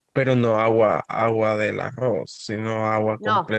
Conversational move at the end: taking over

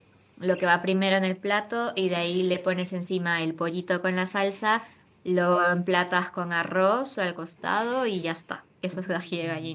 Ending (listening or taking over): taking over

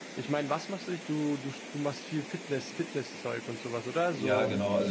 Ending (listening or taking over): taking over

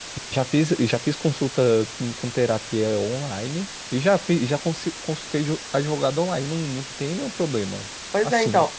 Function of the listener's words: taking over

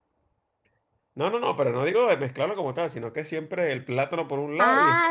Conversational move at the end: taking over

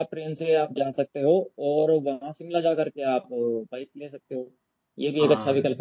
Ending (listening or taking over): listening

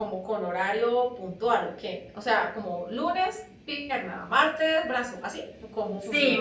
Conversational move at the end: taking over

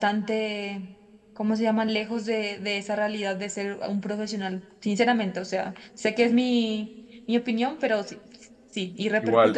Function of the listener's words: taking over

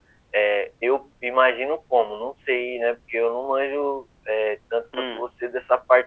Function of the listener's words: listening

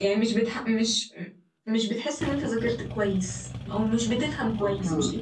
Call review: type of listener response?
taking over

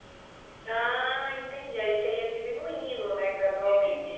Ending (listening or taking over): taking over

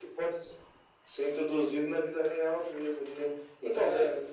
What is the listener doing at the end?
listening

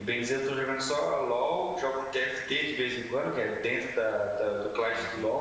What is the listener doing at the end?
taking over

